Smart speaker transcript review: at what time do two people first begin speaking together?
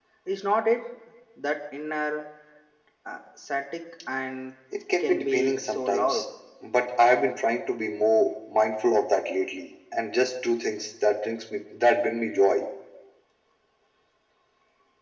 5.0 s

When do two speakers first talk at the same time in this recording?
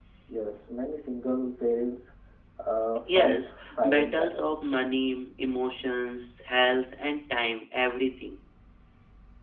3.1 s

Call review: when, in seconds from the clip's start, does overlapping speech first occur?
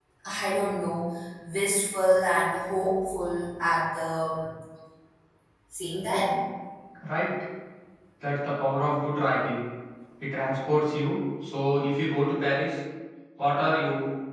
none

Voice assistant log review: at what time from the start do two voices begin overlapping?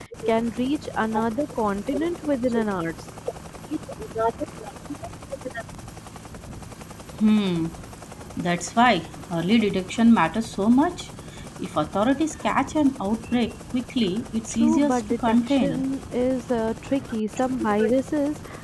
14.5 s

